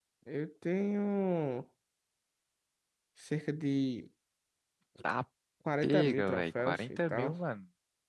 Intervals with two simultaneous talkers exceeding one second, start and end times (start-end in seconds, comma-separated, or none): 5.8-7.3